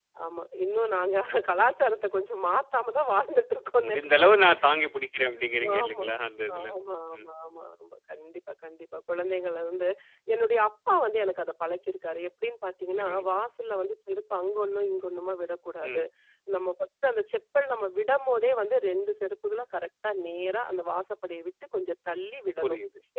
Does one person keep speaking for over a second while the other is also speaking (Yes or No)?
No